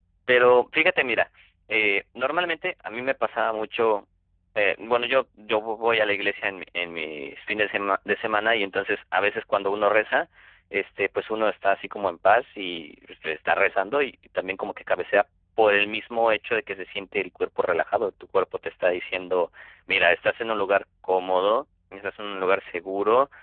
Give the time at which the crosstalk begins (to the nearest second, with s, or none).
none